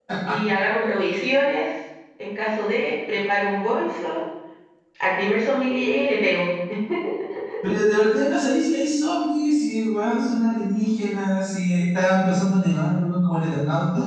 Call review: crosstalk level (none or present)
none